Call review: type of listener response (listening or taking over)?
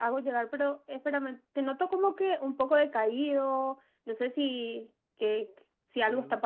listening